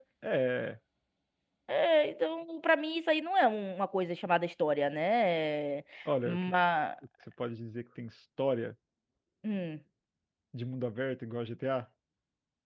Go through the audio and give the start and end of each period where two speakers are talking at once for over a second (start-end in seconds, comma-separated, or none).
none